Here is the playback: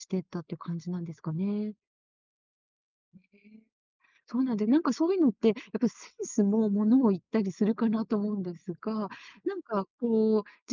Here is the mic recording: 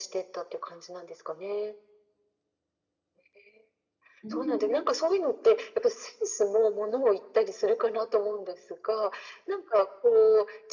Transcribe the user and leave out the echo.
うん。

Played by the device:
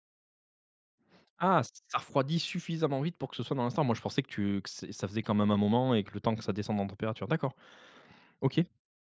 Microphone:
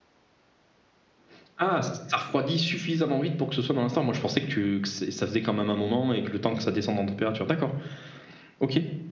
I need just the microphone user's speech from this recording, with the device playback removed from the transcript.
none

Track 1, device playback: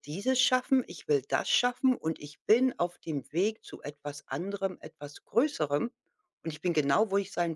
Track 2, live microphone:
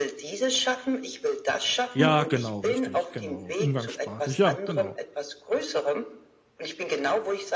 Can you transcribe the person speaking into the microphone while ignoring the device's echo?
Ja, genau, richtig, genau. Umgangssprachlich, ja, genau.

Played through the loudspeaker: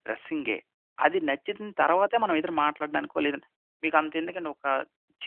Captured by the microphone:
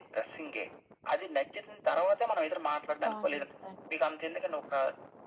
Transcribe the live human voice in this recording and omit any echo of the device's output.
టాన్ జేయడానికి.

